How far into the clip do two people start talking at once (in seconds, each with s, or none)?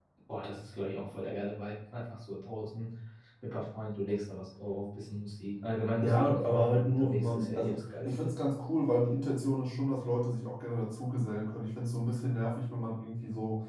6.0 s